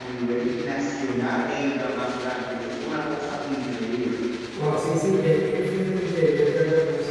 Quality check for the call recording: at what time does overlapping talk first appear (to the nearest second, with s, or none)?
none